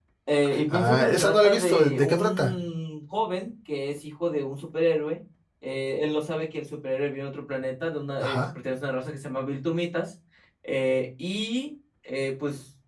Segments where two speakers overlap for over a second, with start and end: 0.7-2.5

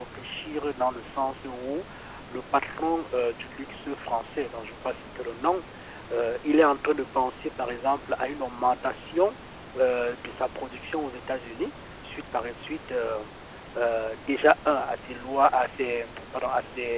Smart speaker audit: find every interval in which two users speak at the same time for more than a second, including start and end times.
none

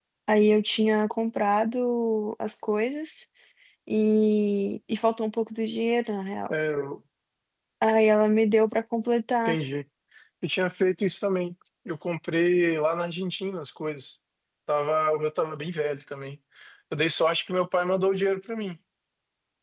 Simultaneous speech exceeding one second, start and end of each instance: none

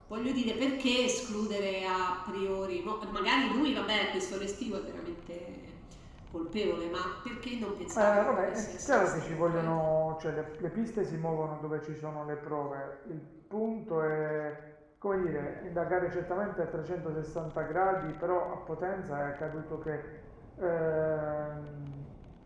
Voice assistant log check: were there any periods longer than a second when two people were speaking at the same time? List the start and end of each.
7.9-9.8

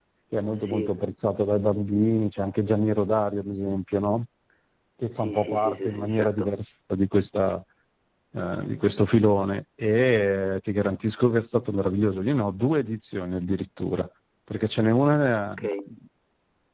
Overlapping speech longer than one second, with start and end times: 5.1-6.5

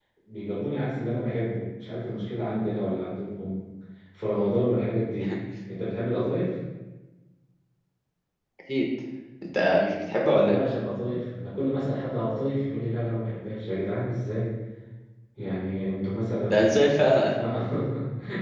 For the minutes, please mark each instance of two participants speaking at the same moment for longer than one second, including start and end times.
none

